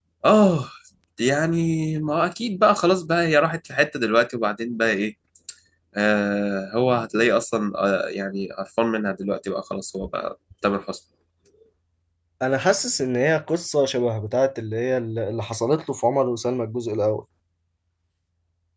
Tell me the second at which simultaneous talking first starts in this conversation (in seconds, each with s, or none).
none